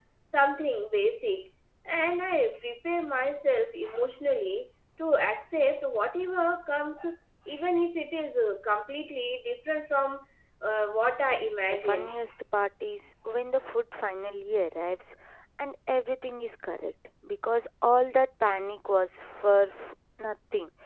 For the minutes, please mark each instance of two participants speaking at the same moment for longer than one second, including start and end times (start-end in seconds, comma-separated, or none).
none